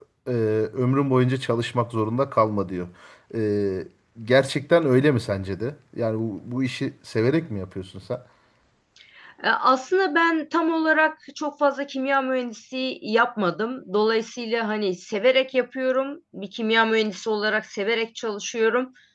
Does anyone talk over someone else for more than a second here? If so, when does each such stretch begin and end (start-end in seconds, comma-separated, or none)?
none